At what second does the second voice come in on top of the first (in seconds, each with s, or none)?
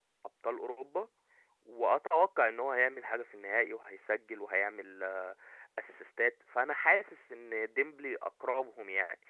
none